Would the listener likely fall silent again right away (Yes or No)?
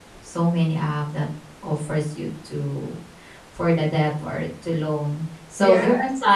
Yes